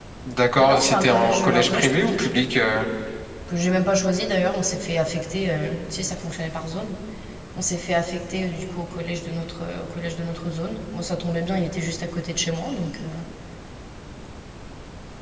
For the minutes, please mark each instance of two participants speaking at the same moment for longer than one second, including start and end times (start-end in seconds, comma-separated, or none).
0.6-2.3